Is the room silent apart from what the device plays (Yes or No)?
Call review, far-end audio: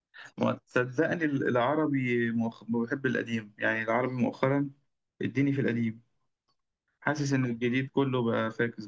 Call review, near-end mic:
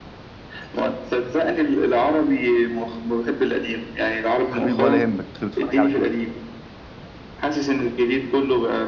No